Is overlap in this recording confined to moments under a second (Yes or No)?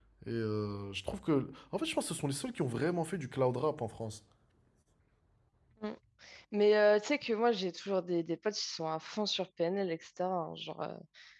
Yes